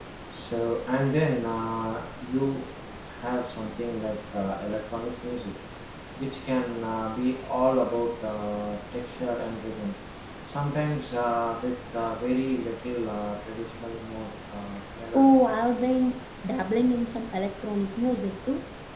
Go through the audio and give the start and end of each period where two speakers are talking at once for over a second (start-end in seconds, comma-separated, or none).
none